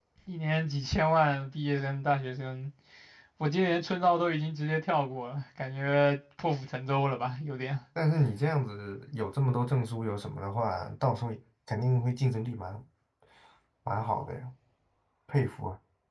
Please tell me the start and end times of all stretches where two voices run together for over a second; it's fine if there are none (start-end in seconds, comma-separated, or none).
none